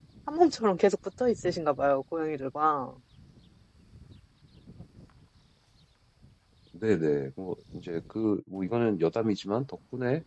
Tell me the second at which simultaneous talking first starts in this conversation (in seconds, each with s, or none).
none